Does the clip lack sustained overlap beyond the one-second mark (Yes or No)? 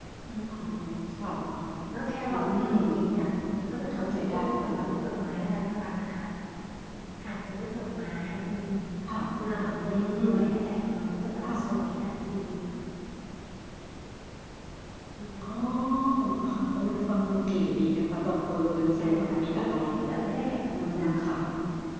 No